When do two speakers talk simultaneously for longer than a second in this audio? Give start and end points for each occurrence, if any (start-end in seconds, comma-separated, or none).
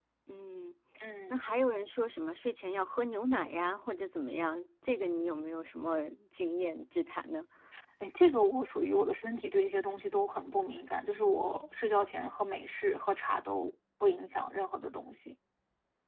none